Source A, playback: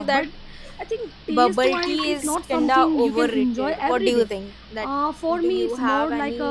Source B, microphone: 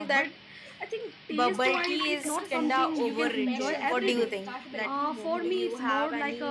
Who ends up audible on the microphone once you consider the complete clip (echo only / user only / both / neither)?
both